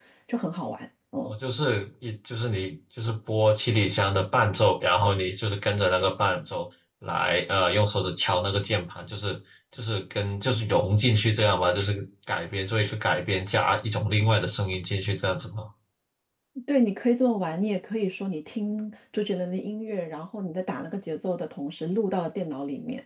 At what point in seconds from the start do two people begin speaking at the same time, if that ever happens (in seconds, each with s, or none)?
none